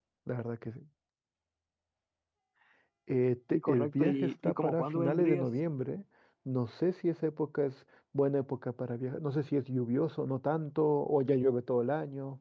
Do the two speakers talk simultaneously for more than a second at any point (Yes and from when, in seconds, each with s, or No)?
Yes, from 3.5 s